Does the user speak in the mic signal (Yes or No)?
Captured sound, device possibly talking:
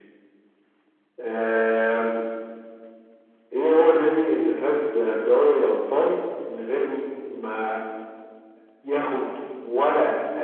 No